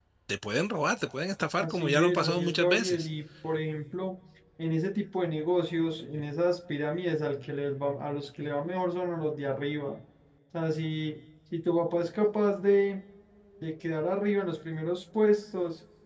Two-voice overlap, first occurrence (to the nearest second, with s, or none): 2 s